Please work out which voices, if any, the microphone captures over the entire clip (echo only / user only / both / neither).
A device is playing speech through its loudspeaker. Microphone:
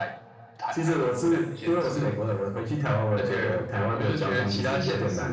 echo only